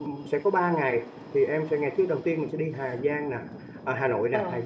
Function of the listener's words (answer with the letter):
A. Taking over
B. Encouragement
B